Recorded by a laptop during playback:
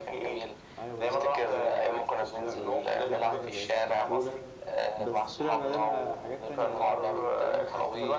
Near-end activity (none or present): present